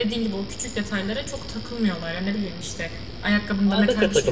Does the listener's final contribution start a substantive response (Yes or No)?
No